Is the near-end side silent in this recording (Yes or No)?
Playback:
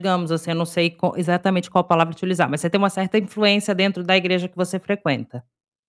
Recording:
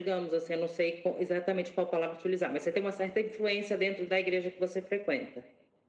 Yes